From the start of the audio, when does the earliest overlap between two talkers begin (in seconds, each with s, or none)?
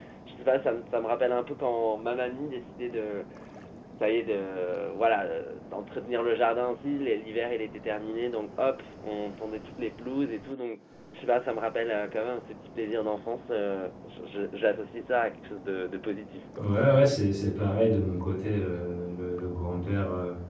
none